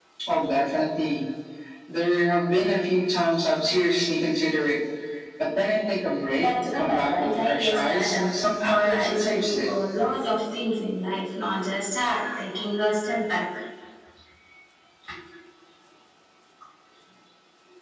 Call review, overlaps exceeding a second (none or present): present